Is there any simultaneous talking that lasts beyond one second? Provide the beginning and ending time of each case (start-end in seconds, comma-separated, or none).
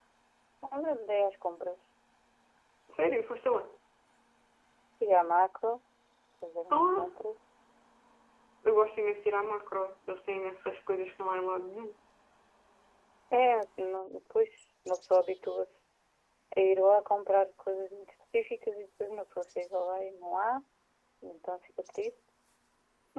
none